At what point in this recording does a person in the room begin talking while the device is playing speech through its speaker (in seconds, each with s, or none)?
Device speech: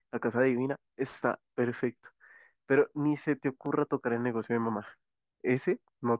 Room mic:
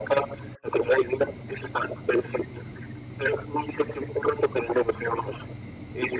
none